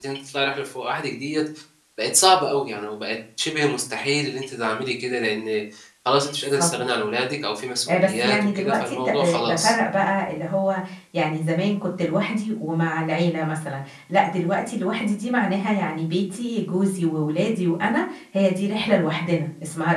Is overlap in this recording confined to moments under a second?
No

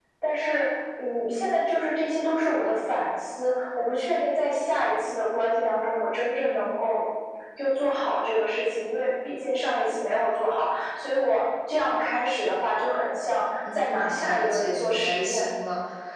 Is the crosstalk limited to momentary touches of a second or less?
No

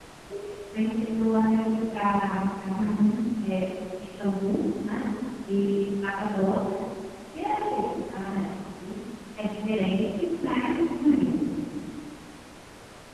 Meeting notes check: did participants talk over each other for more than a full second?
No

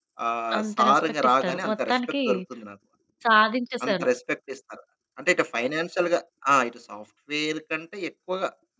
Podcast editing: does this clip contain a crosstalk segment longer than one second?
Yes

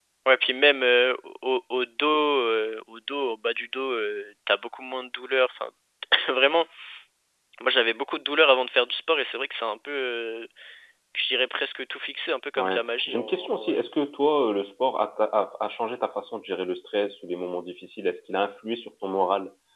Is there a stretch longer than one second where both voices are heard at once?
Yes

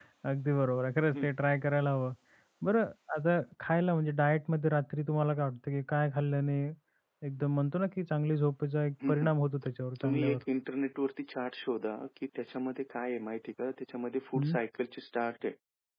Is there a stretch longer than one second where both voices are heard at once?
No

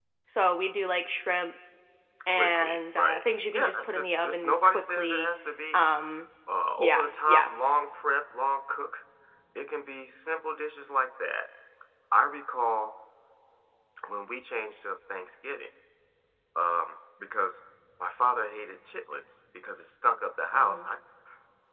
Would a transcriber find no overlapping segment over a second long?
No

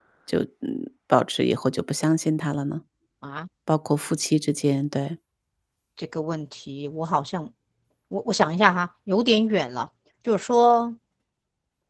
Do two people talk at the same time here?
No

